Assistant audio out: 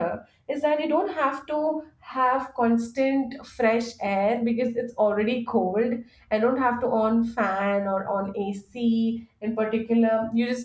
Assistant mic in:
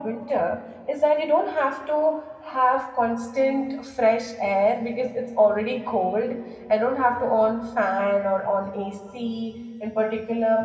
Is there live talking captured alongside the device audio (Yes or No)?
No